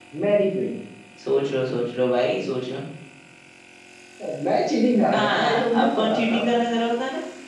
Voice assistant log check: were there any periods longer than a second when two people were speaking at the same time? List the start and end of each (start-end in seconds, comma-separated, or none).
5.1-6.4